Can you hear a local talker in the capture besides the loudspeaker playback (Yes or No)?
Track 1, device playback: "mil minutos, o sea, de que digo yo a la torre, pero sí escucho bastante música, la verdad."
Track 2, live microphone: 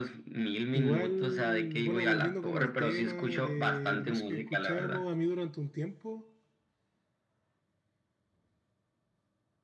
Yes